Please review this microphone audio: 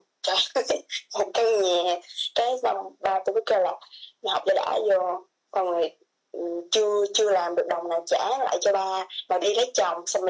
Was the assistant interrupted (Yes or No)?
No